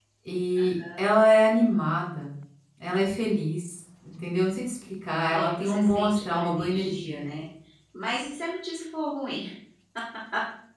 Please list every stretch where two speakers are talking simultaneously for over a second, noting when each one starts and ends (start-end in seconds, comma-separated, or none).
5.2-7.4